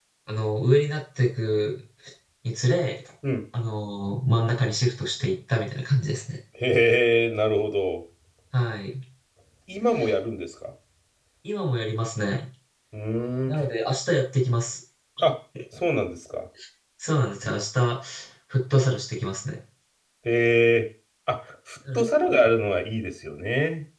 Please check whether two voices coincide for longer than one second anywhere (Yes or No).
No